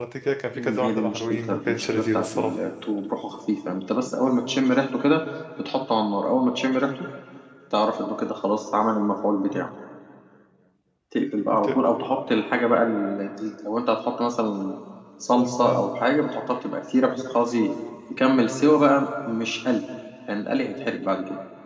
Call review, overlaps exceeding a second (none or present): present